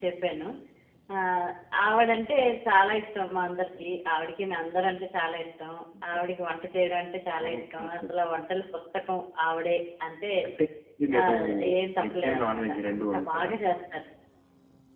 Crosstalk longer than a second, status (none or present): present